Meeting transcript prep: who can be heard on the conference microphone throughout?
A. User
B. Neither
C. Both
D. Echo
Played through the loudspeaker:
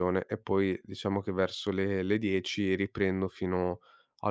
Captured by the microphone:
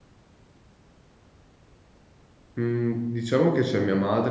A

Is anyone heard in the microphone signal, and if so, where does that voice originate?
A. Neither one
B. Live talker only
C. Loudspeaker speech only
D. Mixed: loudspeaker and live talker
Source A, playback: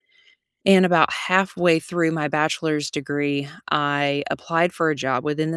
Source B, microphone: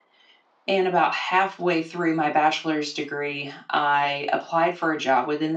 C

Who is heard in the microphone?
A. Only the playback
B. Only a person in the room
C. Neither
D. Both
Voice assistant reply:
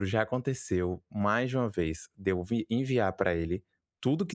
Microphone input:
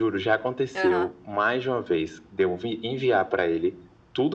D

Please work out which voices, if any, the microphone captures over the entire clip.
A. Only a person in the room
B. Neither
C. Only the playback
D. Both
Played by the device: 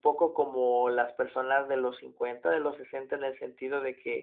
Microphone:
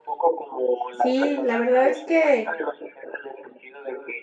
D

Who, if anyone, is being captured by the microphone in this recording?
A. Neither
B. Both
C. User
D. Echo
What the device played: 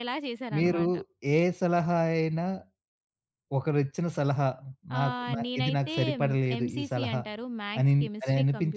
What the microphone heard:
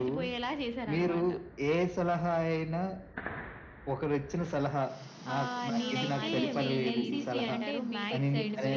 B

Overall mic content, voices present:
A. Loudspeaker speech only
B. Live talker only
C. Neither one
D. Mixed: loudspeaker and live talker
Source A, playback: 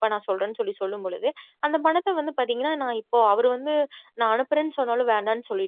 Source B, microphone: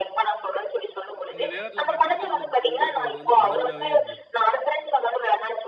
D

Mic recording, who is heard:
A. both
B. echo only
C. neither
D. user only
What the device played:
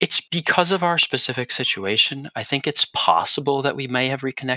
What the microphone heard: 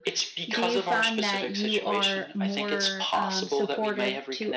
A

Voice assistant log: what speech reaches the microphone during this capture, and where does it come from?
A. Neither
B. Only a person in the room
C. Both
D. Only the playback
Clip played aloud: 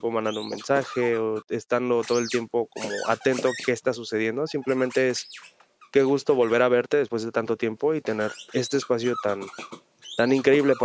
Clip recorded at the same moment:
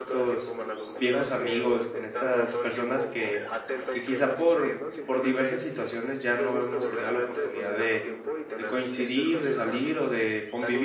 C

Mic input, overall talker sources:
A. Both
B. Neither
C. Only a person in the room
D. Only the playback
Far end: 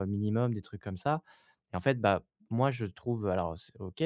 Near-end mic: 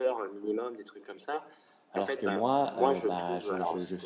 A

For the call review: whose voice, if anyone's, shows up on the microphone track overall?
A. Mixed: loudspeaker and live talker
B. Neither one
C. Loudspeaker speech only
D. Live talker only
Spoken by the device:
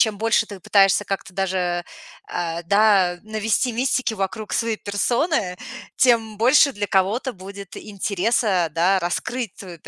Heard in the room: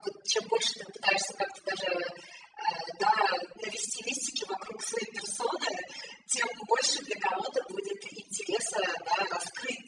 C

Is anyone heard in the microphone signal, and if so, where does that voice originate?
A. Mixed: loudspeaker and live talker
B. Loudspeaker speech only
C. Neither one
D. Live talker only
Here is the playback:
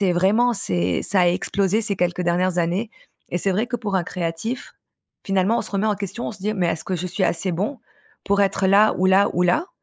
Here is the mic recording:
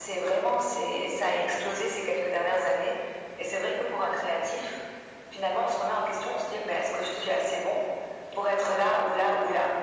B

